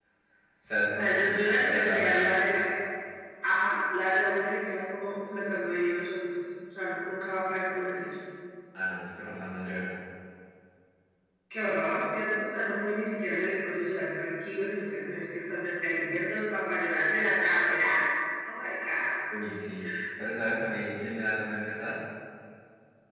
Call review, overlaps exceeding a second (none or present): present